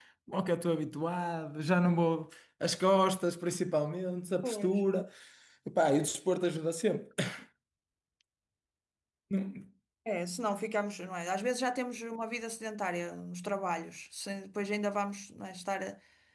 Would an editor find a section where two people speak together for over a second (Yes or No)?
No